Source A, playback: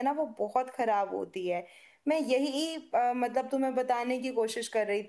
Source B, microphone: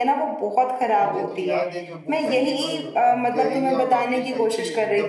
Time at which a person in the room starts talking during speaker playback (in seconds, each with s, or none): 1.0 s